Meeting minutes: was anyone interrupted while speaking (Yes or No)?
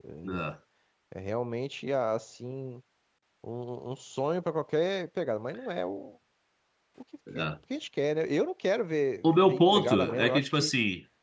Yes